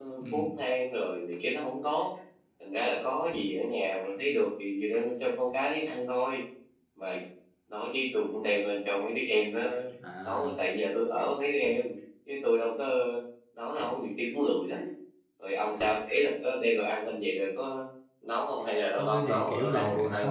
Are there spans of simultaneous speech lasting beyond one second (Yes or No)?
Yes